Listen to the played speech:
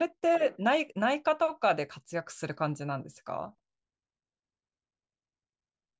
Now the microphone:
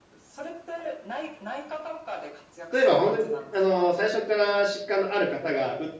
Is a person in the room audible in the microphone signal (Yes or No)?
Yes